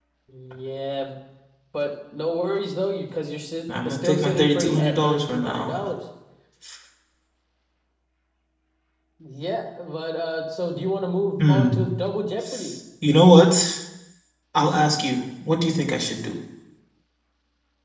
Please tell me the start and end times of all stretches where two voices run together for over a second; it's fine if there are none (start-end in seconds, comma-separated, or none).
3.9-5.9